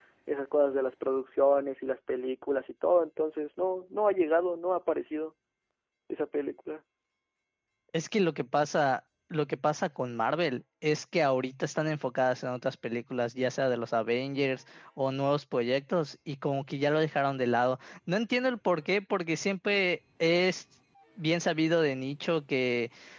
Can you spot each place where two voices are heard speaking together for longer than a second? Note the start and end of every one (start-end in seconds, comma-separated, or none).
none